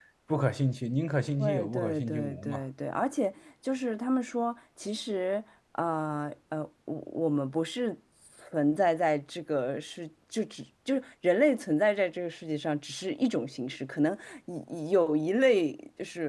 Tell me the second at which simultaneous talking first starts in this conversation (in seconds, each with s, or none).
1.4 s